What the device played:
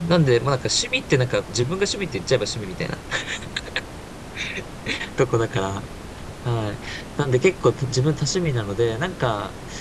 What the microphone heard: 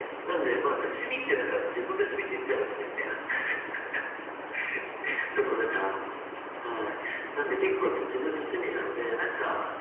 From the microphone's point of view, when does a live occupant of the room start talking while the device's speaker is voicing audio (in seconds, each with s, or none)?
none